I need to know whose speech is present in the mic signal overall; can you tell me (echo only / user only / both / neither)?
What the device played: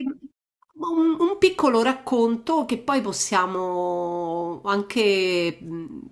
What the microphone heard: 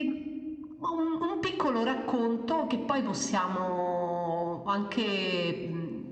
echo only